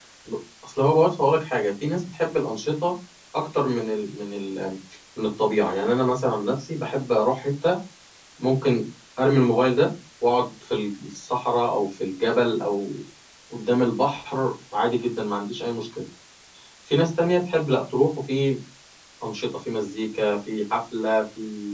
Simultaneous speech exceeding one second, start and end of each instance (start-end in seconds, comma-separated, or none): none